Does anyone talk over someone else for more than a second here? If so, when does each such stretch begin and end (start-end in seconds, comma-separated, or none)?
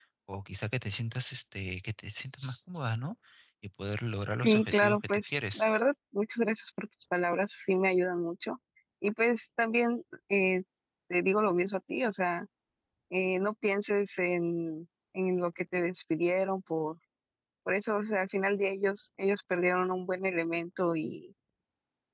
4.4-5.7